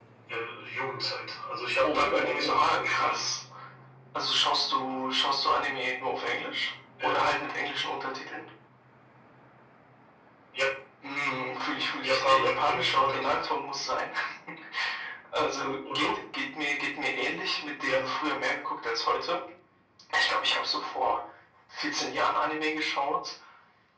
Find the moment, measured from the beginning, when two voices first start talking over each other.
1.8 s

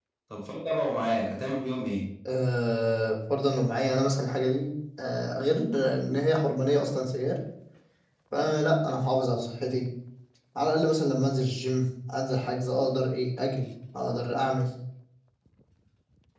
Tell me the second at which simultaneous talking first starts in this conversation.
none

